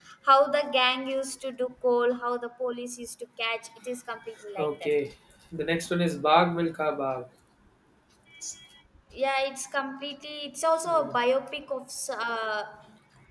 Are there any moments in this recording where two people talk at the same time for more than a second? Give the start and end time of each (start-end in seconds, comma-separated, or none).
none